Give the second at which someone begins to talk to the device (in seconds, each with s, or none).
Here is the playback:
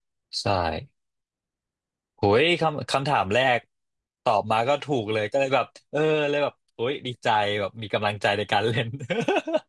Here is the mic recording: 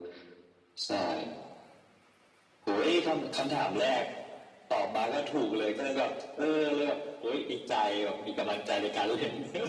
none